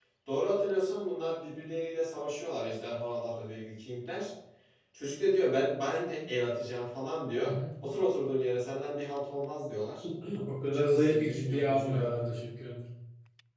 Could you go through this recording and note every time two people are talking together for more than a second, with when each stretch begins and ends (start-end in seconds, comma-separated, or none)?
10.7-12.1